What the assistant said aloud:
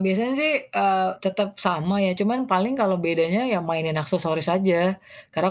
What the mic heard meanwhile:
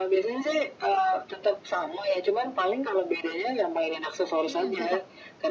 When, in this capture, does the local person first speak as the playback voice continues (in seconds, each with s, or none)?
4.5 s